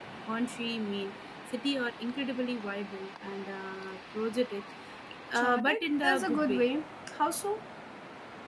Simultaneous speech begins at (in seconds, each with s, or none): 5.3 s